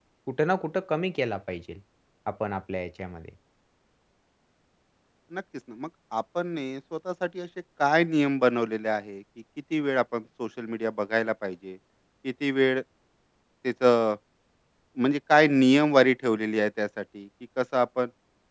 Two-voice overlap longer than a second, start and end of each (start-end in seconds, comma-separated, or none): none